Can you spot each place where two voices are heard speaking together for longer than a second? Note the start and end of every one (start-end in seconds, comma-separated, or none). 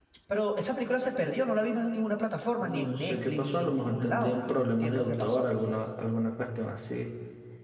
2.6-5.5